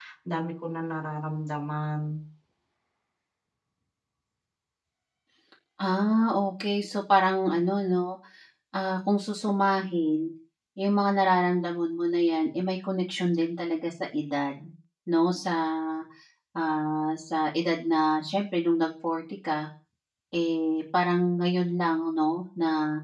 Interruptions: none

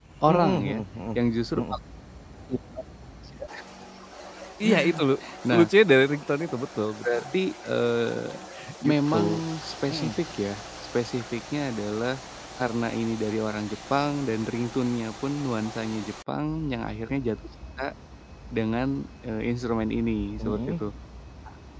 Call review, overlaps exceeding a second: none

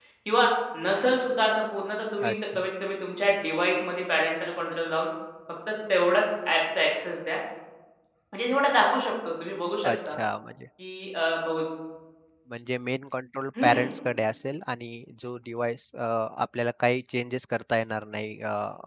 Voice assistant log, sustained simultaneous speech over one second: none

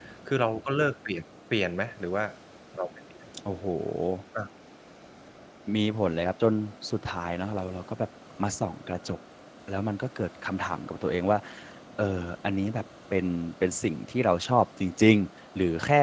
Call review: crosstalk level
none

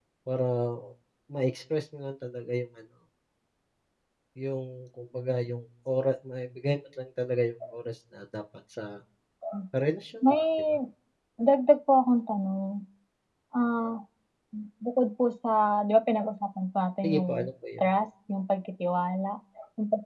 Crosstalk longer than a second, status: none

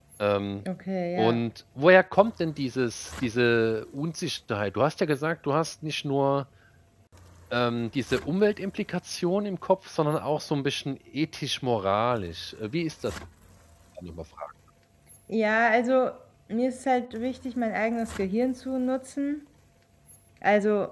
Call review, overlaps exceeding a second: none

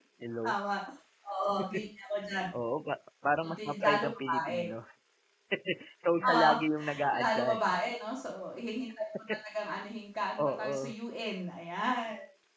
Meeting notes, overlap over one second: present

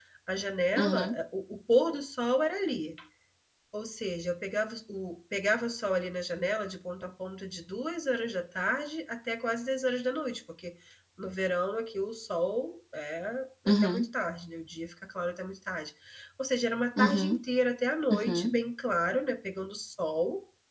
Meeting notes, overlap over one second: none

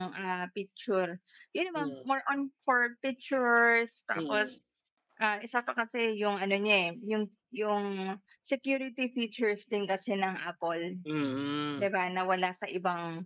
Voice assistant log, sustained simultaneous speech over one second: none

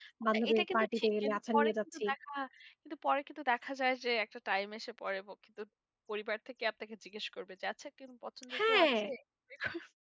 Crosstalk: present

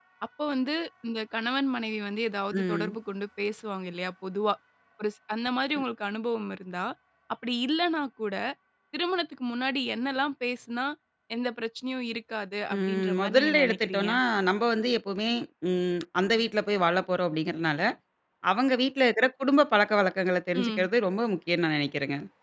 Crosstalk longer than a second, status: present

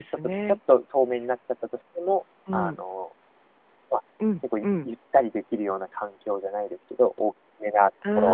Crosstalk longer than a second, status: none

